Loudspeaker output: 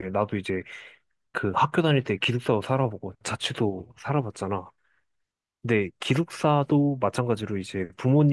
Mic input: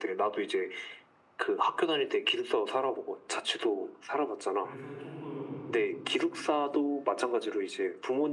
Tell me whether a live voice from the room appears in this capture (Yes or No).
Yes